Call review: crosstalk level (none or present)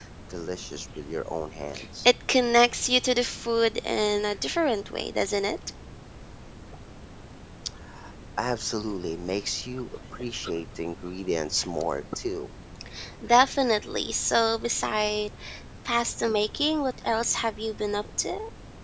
none